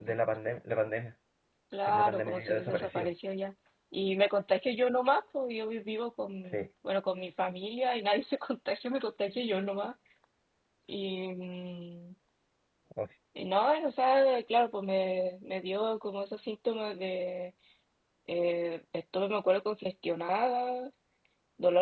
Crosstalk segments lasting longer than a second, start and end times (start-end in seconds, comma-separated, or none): 1.9-3.1